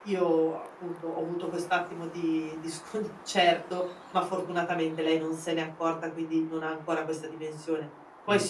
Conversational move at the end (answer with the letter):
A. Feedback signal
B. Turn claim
A